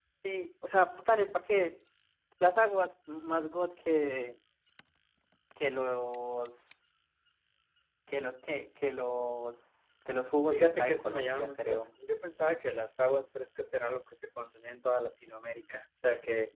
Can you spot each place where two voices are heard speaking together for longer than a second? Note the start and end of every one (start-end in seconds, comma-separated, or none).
10.5-11.8